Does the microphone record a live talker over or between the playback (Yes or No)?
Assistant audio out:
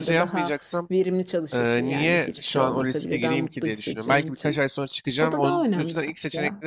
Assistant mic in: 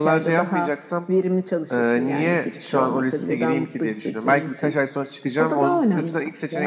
No